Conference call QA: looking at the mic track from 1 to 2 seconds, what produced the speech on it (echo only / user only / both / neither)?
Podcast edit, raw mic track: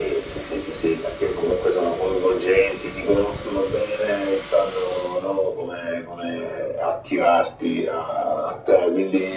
echo only